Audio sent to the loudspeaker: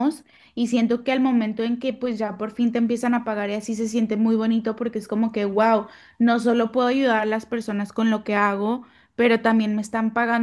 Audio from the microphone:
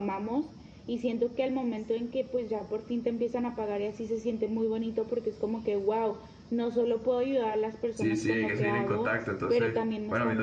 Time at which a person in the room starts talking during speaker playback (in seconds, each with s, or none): 7.9 s